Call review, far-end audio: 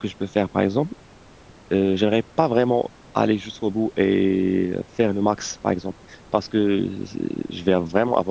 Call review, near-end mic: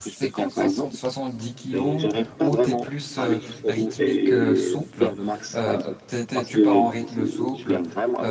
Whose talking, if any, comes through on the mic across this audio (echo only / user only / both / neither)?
both